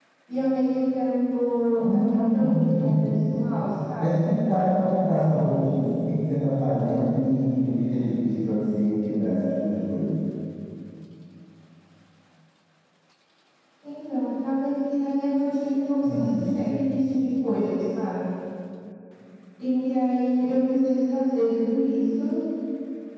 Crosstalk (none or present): present